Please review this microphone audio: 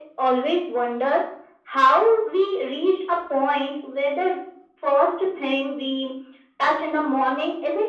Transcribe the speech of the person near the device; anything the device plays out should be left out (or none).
none